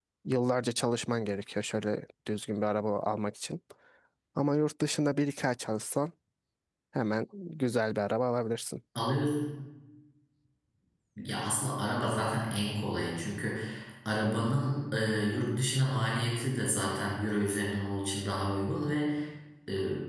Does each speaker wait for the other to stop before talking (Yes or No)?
Yes